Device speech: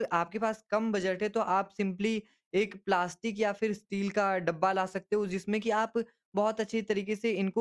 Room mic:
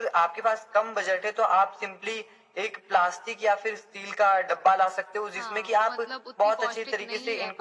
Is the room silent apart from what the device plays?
No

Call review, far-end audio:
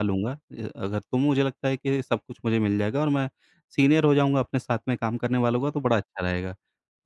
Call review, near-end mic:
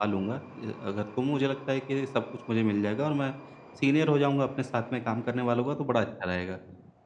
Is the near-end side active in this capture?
No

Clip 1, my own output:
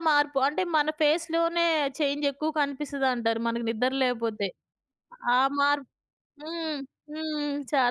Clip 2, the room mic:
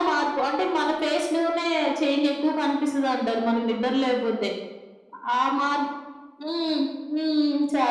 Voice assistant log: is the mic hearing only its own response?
Yes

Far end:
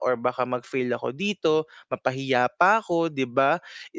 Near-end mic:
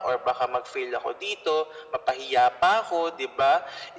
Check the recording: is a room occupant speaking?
No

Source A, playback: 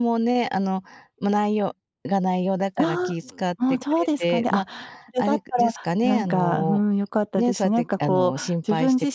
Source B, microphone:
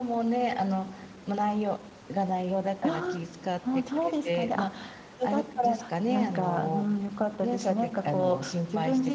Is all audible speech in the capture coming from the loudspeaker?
Yes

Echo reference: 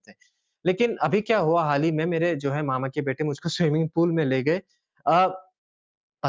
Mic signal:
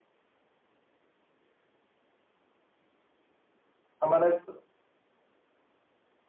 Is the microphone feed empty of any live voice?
No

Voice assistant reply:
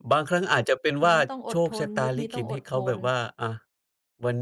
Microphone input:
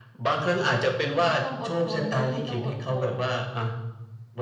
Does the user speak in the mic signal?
No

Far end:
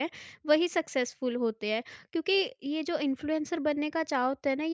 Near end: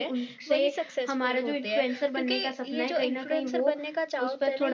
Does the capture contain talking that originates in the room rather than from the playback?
Yes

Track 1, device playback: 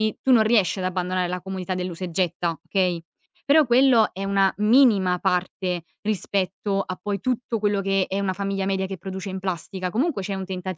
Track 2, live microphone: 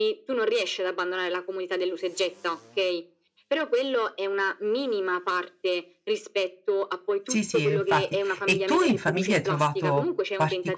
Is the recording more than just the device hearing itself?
Yes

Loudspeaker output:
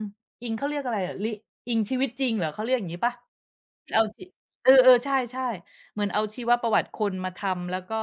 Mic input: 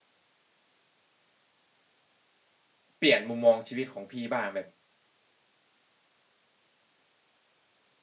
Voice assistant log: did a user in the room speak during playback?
Yes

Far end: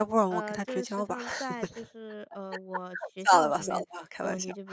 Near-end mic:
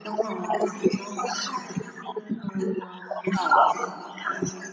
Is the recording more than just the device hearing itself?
No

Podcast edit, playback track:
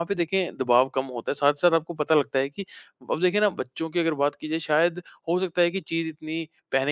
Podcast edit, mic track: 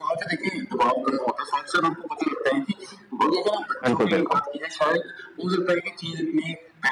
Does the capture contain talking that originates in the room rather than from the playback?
Yes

